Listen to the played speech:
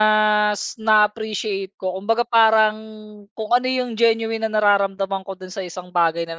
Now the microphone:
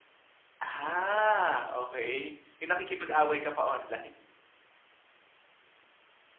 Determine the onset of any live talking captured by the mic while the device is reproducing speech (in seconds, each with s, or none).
0.6 s